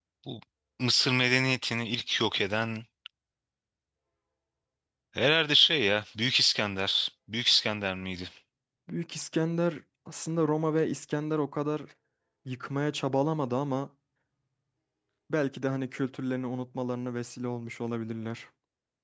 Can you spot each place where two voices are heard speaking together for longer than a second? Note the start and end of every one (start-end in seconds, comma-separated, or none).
none